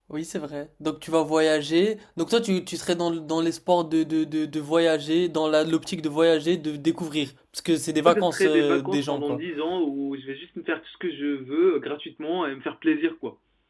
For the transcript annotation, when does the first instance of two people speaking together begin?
8 s

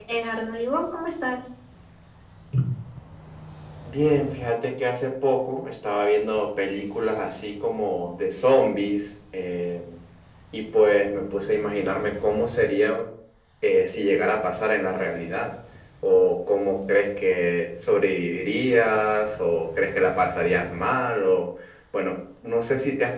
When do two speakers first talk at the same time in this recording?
none

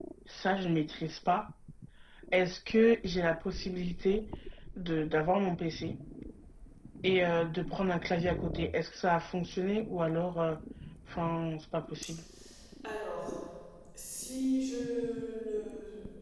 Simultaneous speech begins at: none

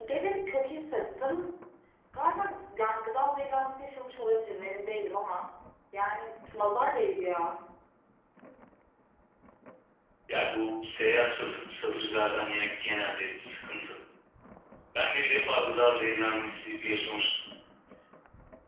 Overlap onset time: none

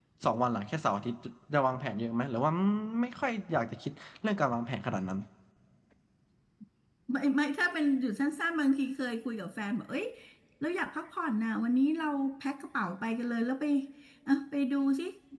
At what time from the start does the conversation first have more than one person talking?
none

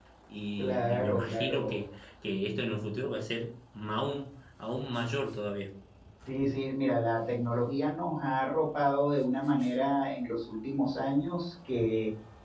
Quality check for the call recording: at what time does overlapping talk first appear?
1 s

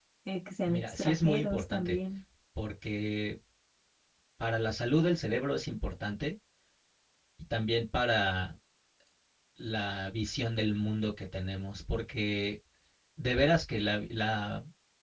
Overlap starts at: 1 s

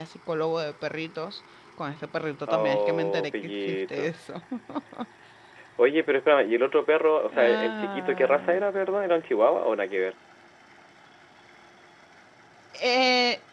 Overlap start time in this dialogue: 2 s

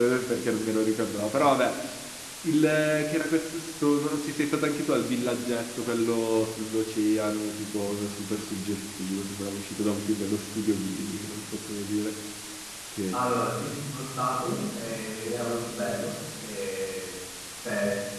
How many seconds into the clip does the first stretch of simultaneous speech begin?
none

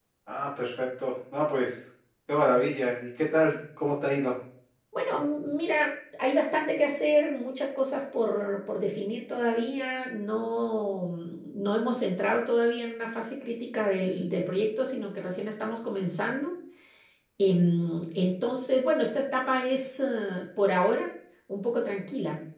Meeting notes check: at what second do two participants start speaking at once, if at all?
none

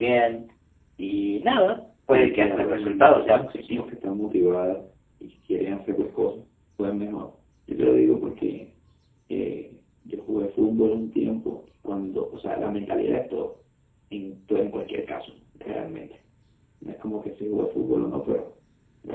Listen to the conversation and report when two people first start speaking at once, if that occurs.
2 s

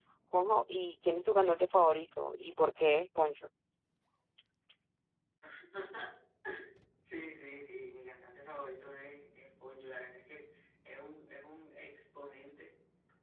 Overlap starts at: none

